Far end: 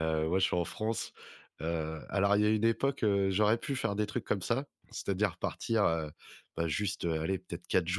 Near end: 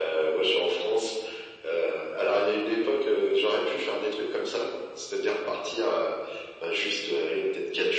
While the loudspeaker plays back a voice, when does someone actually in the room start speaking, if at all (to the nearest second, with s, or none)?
none